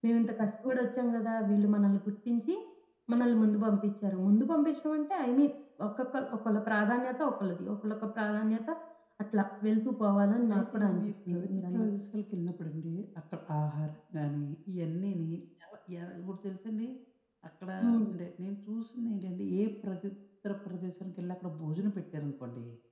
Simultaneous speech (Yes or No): Yes